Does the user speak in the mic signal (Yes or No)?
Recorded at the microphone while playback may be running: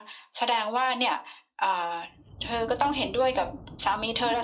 No